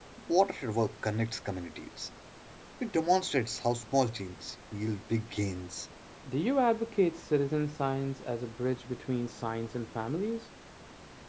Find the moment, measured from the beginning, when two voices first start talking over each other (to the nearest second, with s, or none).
none